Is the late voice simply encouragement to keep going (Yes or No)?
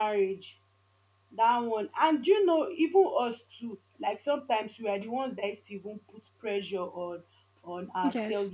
Yes